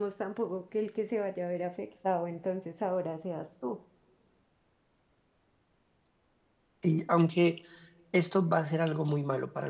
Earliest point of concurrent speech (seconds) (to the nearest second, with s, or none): none